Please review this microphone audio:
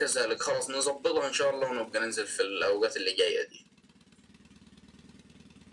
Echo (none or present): present